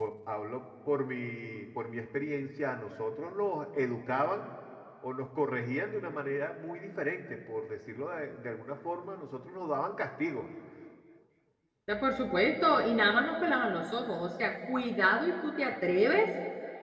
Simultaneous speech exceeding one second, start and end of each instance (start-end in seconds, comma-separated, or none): none